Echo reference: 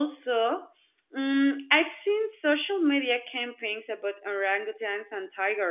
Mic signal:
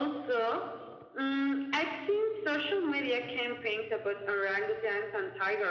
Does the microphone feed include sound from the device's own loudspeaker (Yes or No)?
Yes